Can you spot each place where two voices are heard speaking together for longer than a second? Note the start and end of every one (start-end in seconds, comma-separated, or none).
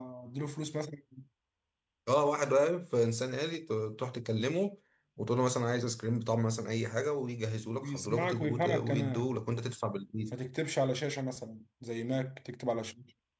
7.8-9.3